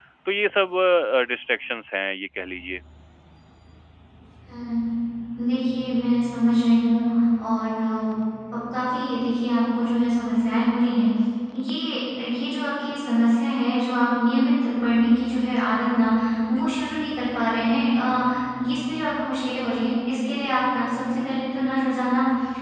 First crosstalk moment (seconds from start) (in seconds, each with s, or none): none